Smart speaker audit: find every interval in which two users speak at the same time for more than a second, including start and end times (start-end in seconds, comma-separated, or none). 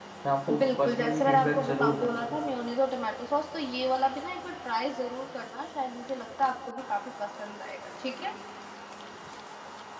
0.6-2.3